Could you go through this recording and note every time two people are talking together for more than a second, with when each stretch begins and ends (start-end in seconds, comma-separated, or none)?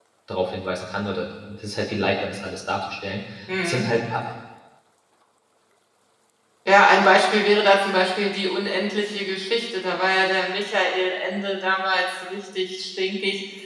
none